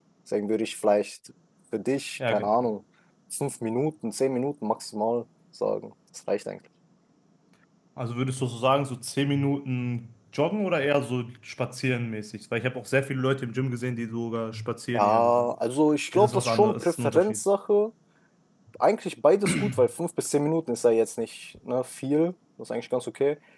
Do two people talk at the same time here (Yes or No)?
Yes